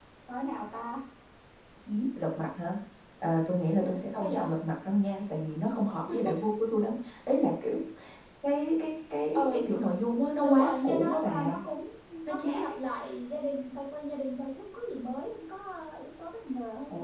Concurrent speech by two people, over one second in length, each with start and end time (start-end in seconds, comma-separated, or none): 10.4-11.6